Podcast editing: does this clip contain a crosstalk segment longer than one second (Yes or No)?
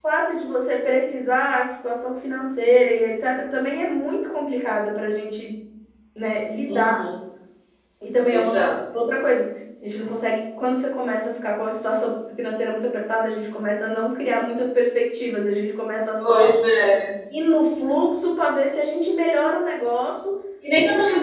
No